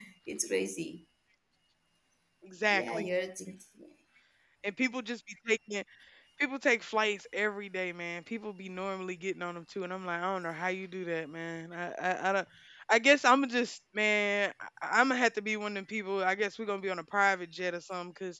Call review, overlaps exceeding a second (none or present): none